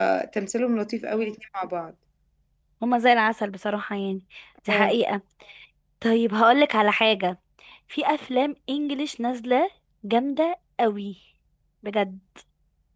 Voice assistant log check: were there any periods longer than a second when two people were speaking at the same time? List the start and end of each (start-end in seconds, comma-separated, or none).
none